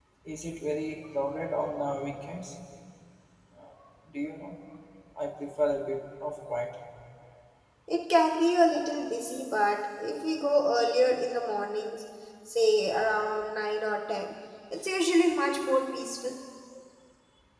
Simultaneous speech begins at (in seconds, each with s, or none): none